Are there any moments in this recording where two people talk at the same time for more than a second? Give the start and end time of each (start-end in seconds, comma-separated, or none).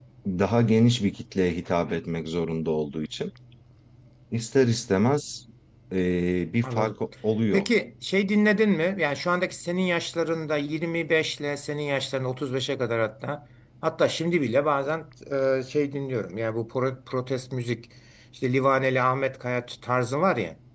none